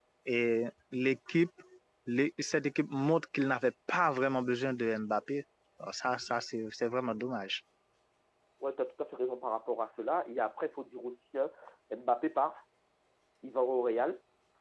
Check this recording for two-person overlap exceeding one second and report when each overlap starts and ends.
none

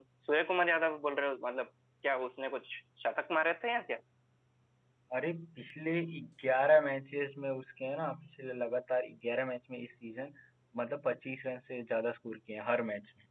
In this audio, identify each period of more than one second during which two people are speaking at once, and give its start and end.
none

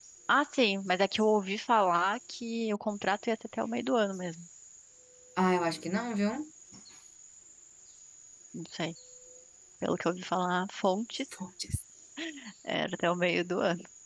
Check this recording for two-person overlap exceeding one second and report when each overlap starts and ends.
none

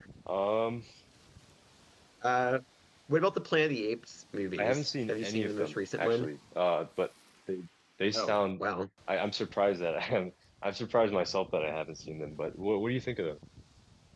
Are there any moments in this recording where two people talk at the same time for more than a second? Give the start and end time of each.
4.6-6.3

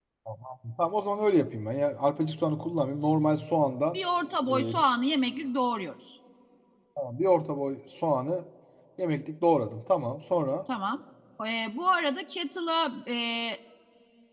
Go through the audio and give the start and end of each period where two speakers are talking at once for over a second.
none

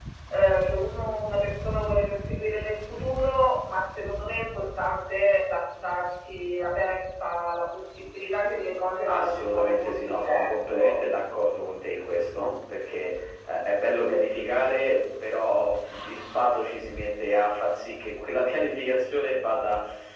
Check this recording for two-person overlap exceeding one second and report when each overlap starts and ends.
9.1-11.0

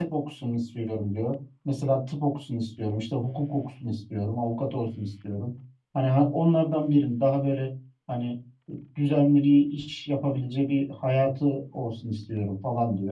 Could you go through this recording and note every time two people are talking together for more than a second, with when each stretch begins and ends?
none

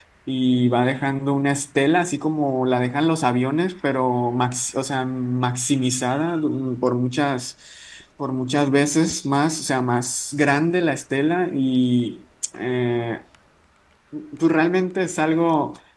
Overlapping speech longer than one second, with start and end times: none

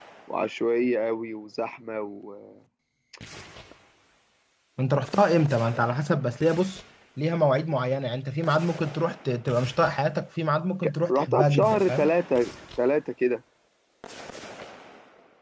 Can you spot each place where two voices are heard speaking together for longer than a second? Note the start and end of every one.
10.8-12.1

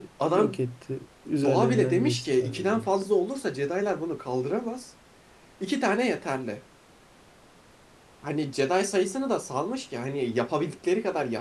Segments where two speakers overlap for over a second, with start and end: 1.4-2.9

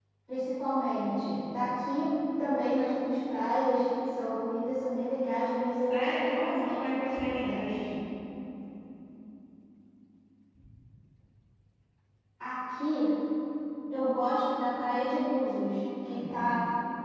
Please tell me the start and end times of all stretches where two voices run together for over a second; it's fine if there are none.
5.9-7.9

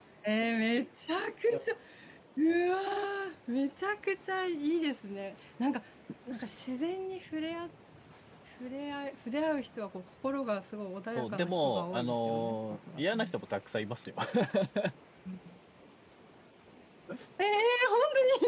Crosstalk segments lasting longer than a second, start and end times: 11.2-13.3

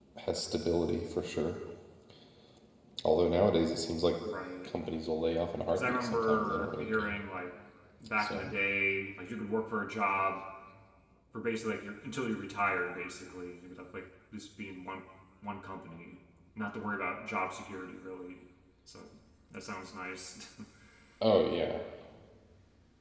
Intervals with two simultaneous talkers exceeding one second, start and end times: 5.7-7.2

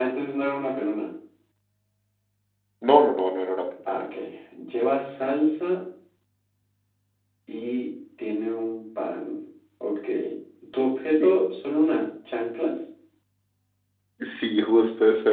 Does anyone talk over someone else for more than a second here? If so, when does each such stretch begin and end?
none

